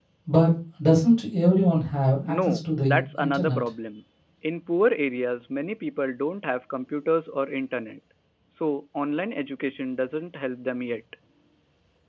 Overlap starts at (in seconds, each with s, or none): 2.2 s